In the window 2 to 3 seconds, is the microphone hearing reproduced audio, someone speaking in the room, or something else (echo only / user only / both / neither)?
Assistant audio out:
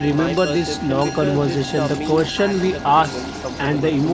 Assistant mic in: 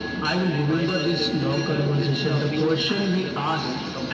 echo only